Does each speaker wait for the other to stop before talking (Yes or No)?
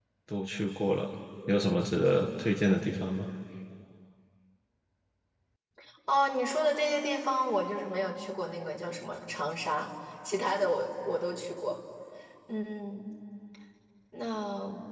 Yes